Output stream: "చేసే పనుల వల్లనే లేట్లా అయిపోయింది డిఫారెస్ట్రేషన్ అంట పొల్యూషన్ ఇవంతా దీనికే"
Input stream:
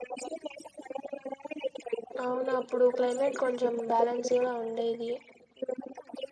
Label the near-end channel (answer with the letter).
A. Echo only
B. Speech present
B